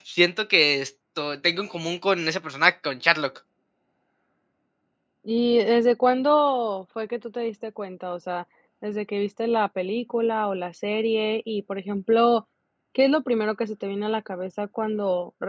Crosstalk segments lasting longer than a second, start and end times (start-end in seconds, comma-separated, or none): none